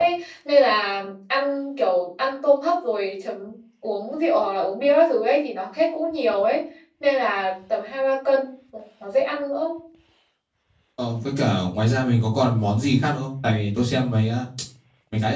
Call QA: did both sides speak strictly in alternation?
Yes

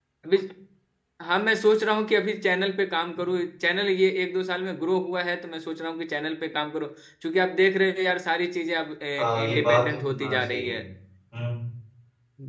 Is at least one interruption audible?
Yes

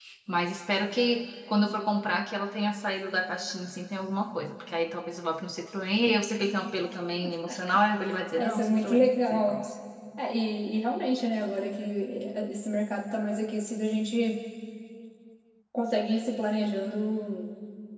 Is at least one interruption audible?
Yes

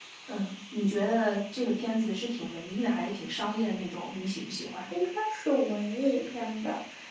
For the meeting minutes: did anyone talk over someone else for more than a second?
No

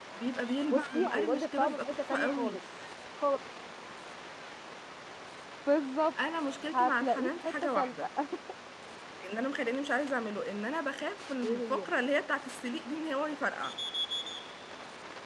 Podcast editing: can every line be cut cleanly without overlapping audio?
No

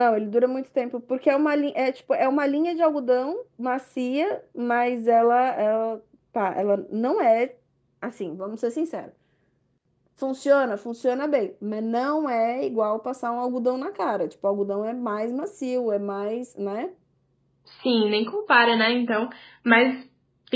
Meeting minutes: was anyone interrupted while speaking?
No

